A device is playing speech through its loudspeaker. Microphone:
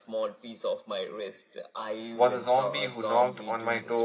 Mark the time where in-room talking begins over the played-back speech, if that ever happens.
2 s

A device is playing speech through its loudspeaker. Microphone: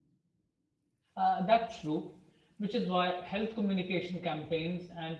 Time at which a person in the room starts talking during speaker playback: 1 s

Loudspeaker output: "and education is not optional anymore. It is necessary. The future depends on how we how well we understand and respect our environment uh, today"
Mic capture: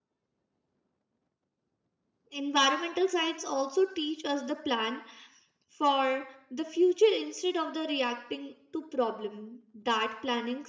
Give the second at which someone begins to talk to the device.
2 s

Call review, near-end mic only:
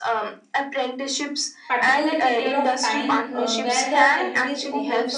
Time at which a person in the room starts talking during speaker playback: 2 s

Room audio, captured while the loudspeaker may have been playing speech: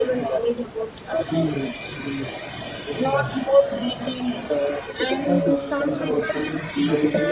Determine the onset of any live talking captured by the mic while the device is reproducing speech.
5 s

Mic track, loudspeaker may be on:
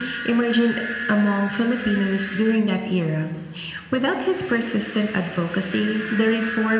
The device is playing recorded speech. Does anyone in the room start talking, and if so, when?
none

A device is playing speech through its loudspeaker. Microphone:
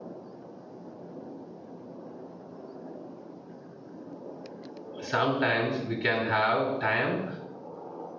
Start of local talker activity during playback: 5 s

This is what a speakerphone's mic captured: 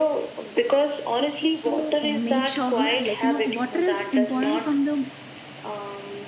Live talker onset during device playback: 2 s

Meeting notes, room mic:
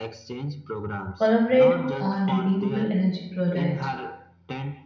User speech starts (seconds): 1 s

